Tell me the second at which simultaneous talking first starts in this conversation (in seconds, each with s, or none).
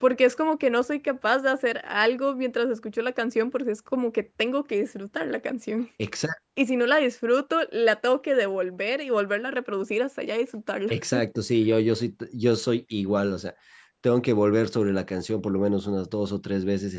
none